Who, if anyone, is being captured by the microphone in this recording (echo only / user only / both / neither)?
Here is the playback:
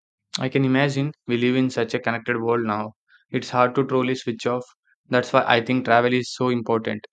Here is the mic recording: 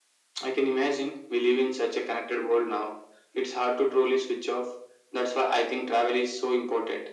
echo only